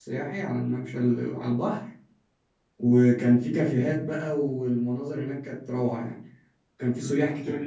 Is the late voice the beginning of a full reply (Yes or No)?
Yes